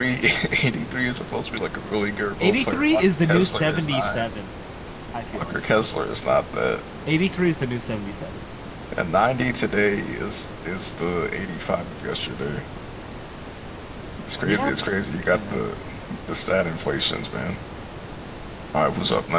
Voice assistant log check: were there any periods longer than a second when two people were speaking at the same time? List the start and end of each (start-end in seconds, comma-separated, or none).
2.4-4.2